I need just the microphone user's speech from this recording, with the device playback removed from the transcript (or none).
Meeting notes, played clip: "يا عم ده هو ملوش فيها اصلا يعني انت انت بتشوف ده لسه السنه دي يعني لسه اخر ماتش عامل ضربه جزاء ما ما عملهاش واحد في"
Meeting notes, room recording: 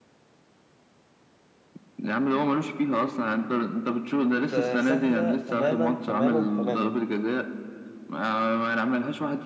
آه، سهلة تماما تماما تماما